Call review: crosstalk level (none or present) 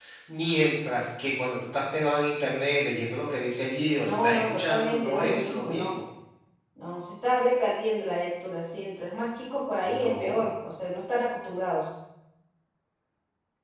present